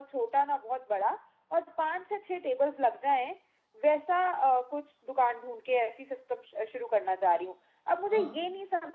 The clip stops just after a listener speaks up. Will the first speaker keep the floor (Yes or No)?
Yes